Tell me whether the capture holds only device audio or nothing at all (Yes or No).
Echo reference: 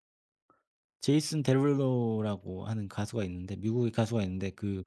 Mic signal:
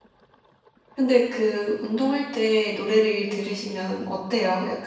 No